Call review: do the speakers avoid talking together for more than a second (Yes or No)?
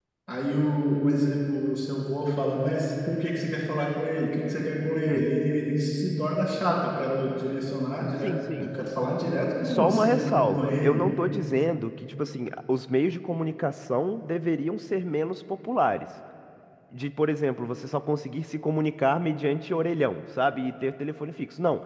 No